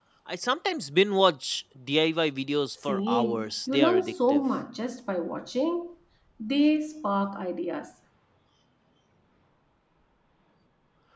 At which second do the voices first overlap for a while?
2.9 s

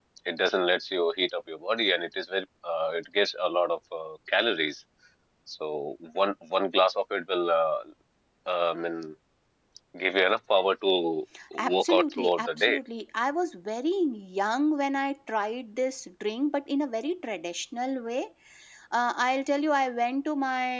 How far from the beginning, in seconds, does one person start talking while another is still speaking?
11.4 s

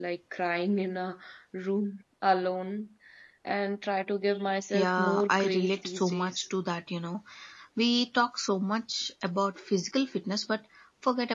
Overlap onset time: 4.6 s

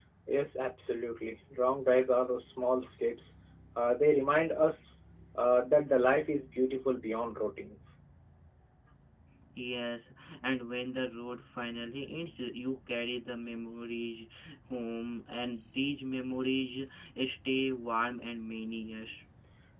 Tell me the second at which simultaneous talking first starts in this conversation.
none

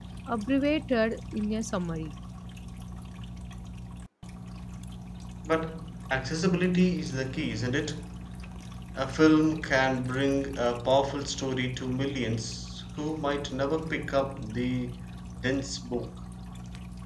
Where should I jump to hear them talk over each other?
none

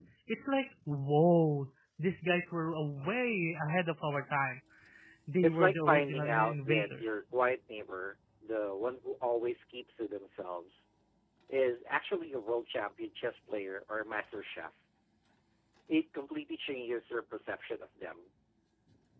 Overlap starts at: 5.4 s

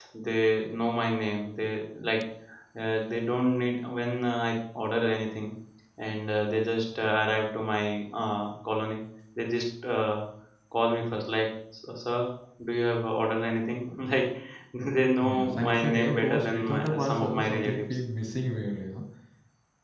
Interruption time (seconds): 15.2 s

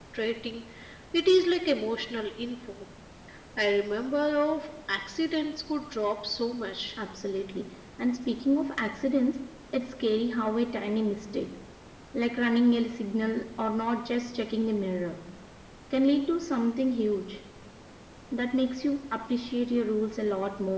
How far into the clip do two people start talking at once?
none

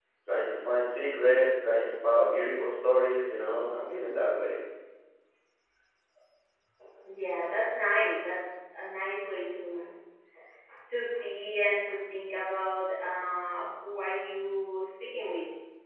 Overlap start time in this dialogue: none

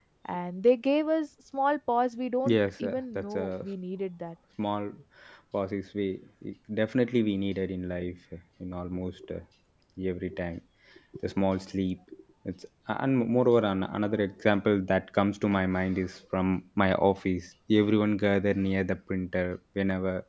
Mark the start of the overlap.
2.4 s

